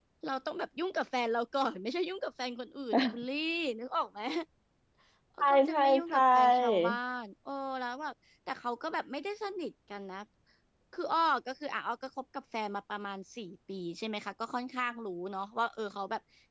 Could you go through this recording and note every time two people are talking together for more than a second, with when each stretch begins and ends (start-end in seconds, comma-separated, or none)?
5.4-6.9